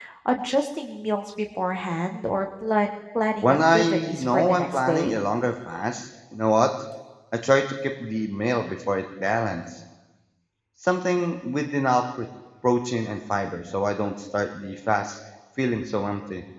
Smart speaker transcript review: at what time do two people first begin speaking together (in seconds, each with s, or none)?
3.4 s